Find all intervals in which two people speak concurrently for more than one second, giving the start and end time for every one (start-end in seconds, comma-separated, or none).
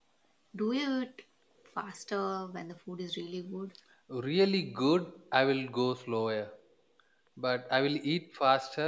none